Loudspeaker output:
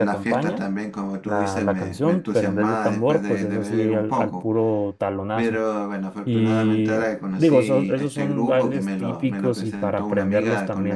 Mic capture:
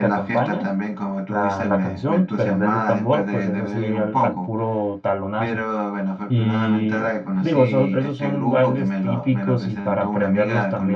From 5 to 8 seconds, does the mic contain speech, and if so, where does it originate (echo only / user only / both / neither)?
echo only